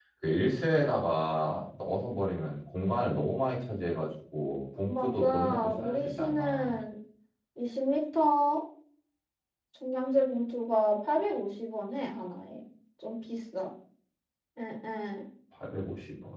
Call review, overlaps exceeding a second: present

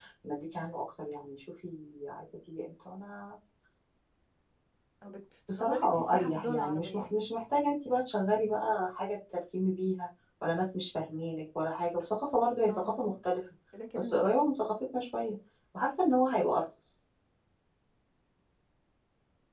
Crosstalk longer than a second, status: present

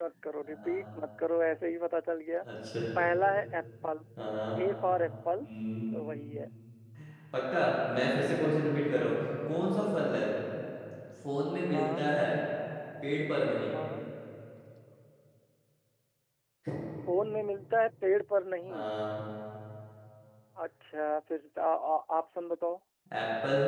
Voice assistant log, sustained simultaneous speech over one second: none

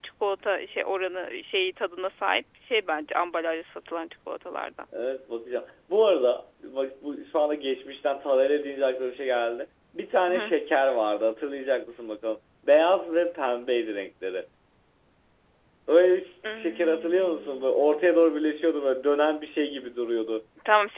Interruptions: present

